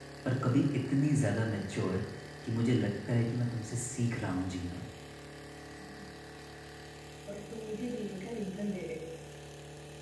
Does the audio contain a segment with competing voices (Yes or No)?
No